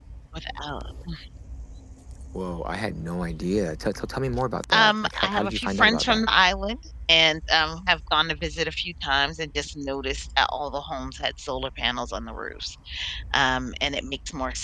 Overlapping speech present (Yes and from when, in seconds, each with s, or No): Yes, from 4.7 s